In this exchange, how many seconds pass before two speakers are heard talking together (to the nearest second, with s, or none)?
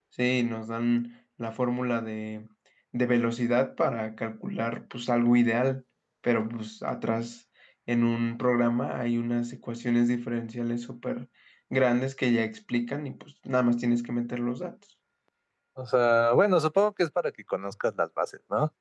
none